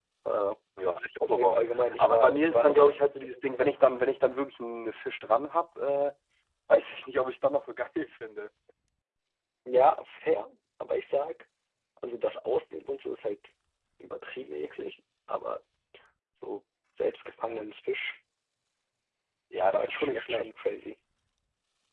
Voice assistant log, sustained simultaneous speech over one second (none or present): present